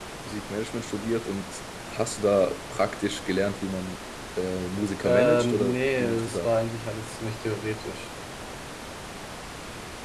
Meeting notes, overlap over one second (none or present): present